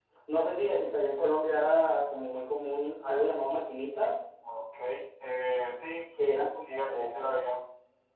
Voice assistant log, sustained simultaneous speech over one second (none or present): present